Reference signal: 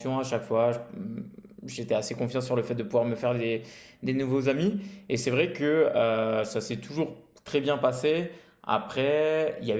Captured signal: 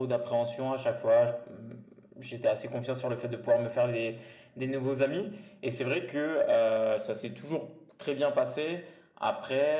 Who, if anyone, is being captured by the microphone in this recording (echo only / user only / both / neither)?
echo only